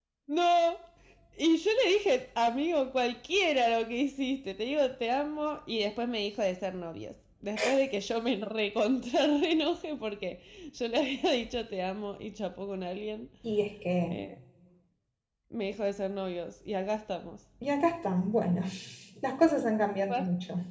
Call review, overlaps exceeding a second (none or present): none